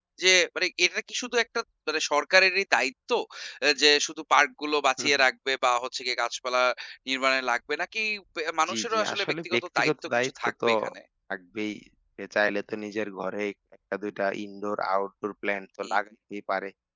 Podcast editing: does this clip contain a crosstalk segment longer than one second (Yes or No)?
Yes